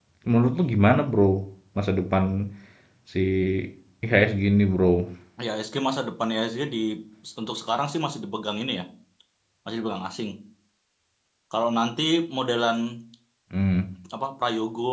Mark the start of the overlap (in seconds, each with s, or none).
none